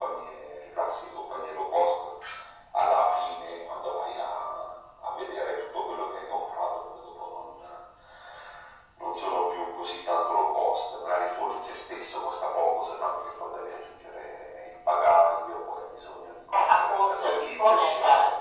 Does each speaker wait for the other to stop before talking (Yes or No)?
No